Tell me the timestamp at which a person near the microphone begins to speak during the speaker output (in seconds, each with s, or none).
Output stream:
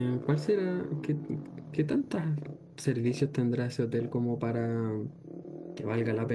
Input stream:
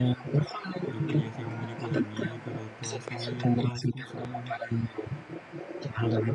0.9 s